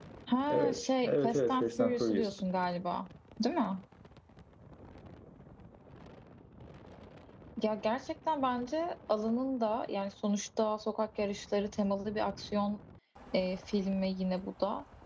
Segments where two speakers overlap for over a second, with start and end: 0.5-2.3

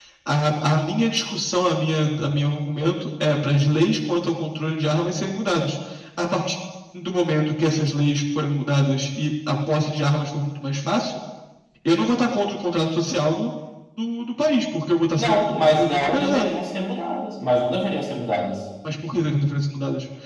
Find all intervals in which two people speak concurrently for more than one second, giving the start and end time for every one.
15.2-16.5

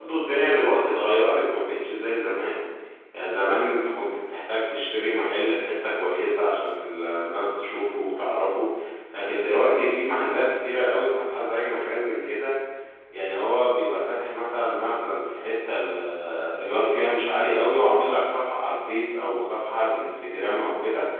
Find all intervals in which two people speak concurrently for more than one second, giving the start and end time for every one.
none

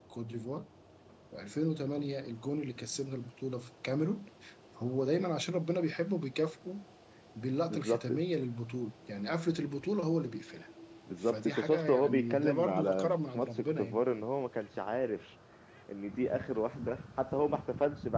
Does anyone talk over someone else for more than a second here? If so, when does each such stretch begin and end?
11.2-14.0

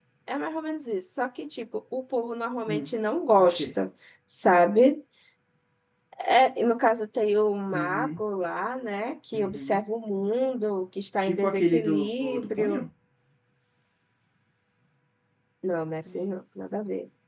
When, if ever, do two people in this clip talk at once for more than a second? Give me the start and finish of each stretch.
11.2-12.8

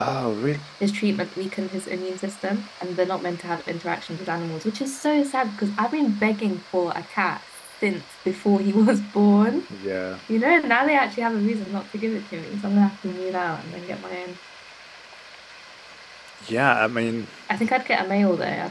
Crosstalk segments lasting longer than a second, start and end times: none

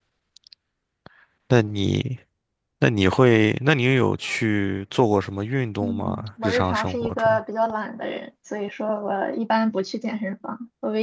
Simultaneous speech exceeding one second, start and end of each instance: 5.8-7.4

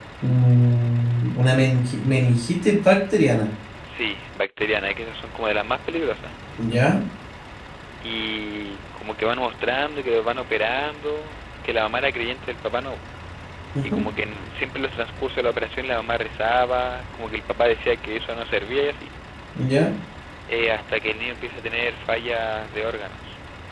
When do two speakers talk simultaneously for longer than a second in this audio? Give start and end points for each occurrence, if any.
none

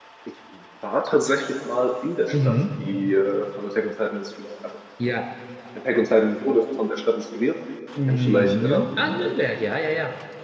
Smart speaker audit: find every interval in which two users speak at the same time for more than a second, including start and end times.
8.1-9.5

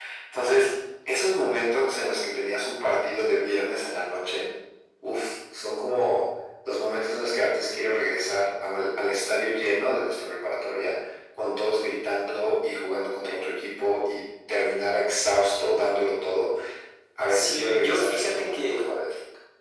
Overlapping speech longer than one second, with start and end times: 17.3-18.8

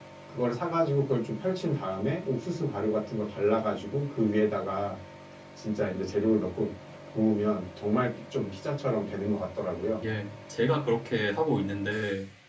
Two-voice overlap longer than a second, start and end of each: none

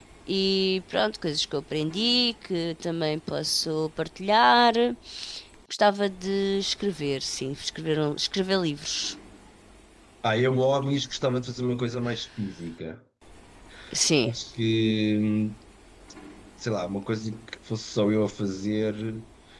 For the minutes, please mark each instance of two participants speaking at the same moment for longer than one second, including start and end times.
none

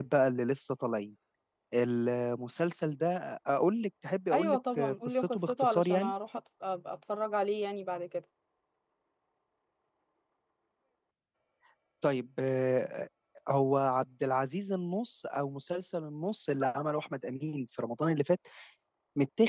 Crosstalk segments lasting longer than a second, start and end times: 4.3-6.1

